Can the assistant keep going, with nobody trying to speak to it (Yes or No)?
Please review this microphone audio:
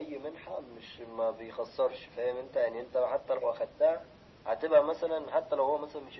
Yes